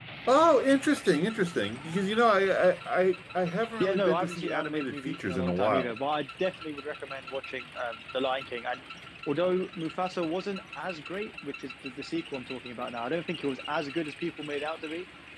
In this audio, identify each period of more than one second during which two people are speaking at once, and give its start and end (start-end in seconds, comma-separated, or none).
3.8-5.9